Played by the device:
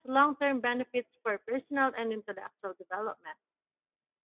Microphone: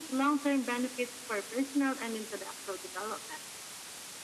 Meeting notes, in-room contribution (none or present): none